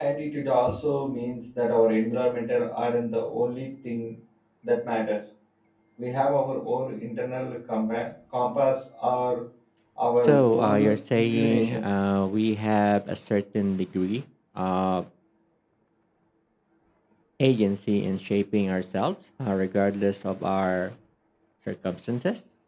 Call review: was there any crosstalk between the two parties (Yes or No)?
Yes